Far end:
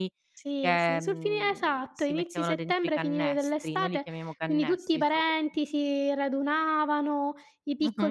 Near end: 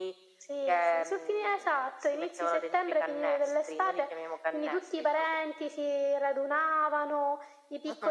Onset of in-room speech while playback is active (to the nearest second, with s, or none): none